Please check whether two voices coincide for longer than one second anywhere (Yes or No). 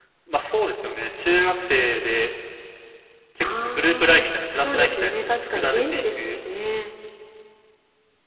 Yes